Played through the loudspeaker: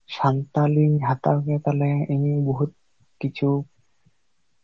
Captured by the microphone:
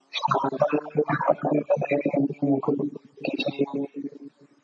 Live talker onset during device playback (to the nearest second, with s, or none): none